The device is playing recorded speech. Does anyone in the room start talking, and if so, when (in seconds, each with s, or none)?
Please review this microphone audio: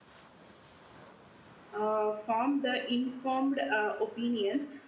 1.7 s